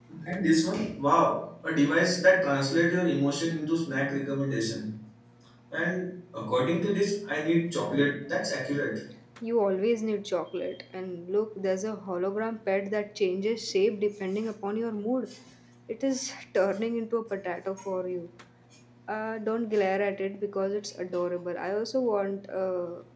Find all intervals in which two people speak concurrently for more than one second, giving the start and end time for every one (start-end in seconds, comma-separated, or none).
none